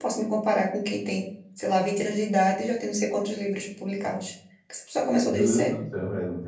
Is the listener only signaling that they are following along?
No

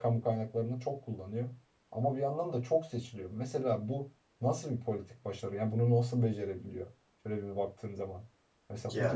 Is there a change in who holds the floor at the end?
No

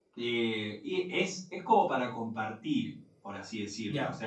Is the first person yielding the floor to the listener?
No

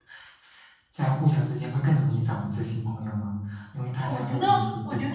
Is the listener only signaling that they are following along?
No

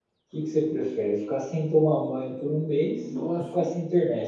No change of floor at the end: Yes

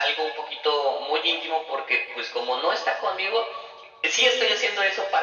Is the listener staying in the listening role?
Yes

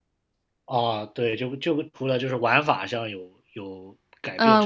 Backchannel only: No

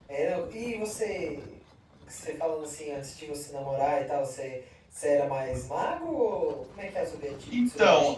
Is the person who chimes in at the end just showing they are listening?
No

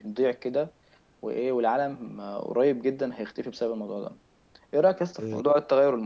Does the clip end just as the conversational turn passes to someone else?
No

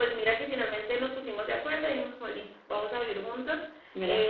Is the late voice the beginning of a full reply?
No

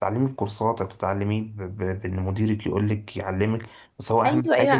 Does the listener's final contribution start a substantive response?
Yes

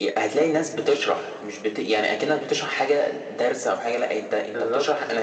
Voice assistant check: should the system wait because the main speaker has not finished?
Yes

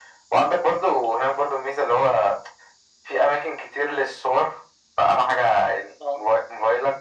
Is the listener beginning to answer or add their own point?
No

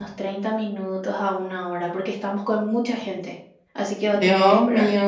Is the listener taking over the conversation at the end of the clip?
Yes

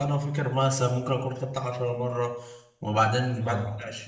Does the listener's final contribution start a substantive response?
No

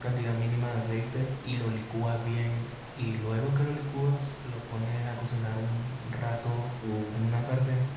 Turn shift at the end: No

